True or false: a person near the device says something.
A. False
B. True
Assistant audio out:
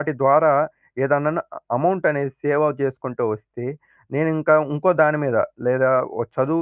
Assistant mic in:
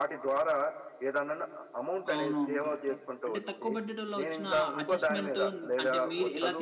B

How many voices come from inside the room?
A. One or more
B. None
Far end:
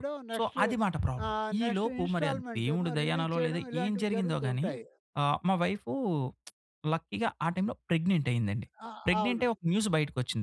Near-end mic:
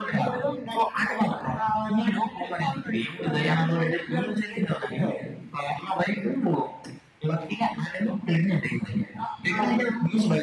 B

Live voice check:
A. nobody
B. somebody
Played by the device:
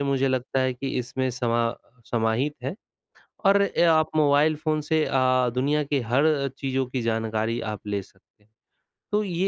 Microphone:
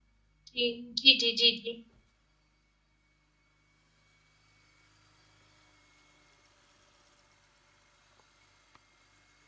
B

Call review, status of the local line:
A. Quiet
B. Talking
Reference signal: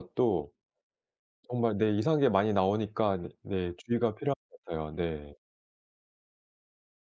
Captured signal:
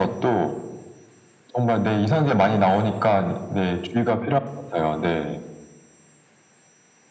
A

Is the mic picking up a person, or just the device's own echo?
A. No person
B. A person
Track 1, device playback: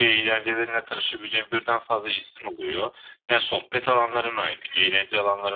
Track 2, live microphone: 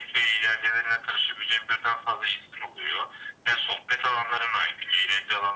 A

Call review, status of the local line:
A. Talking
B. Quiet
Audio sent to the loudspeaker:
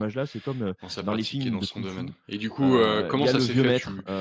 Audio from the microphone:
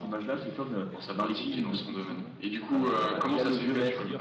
A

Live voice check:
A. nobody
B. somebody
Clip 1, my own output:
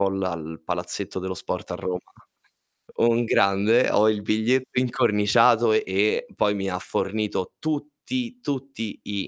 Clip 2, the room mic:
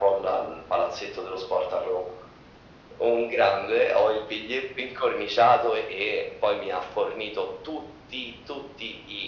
A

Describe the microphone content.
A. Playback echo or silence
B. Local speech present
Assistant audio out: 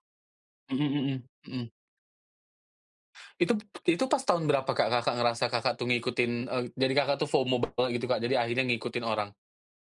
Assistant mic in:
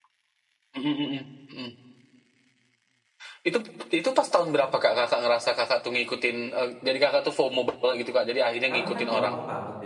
B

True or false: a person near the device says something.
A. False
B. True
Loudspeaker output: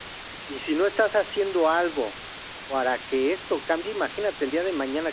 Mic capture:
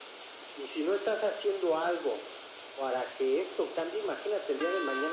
A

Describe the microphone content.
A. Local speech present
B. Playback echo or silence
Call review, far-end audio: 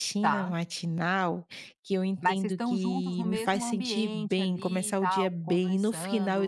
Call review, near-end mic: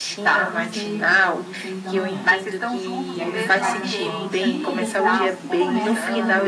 A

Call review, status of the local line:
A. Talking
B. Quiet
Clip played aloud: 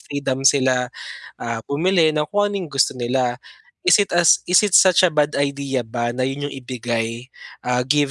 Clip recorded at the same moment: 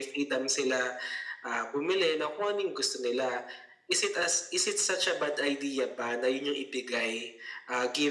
B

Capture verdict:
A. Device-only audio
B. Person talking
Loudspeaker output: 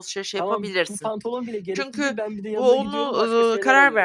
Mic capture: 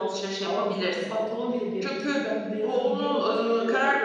A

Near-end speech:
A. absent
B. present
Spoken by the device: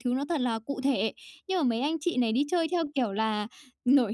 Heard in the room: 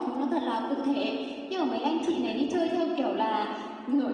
B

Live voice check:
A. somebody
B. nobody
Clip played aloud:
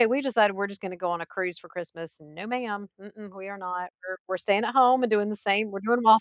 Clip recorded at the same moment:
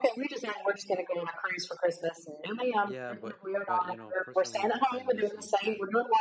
A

